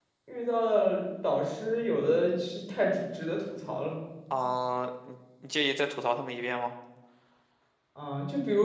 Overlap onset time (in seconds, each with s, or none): none